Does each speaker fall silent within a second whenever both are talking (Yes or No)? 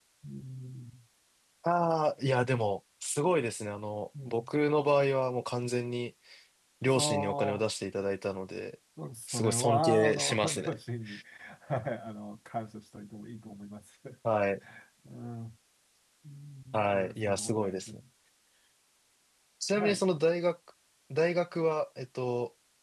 No